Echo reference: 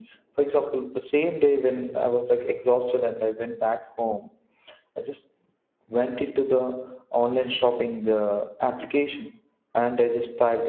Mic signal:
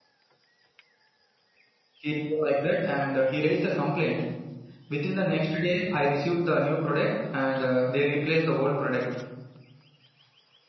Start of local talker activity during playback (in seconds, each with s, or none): 2.0 s